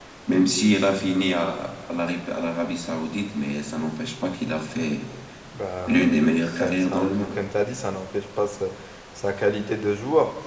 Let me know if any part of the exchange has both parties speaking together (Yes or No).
Yes